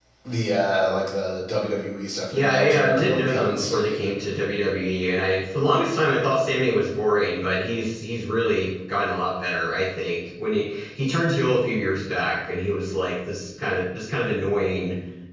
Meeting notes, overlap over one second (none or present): present